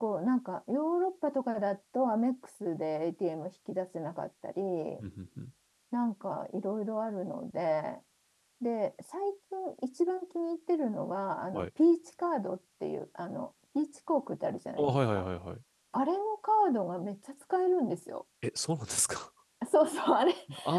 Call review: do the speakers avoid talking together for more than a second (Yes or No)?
Yes